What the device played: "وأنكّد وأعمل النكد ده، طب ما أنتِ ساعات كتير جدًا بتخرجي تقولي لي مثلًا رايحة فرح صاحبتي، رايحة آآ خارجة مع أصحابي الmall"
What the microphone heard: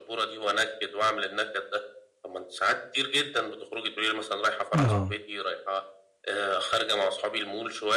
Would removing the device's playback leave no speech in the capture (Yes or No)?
No